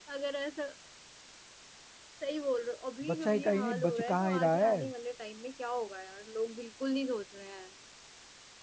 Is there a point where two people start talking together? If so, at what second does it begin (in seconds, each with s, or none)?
3.1 s